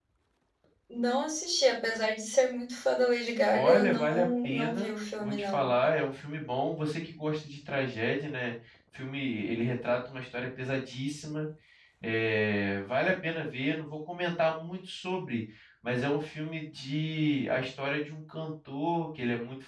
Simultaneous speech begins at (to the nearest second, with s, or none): 4 s